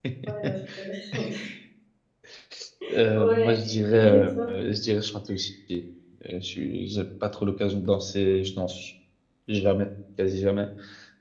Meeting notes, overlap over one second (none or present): present